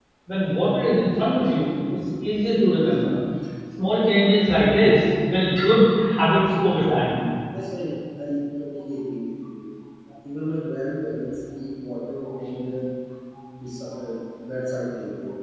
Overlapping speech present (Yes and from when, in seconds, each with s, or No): No